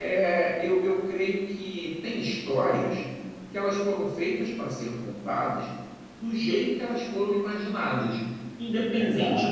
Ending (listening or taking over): listening